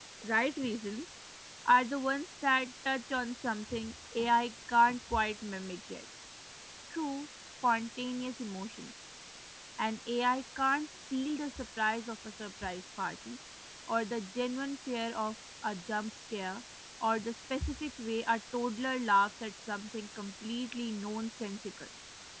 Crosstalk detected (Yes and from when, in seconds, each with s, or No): No